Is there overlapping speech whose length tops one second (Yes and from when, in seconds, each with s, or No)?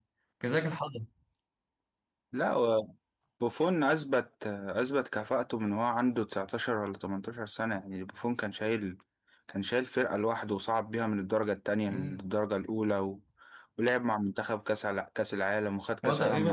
No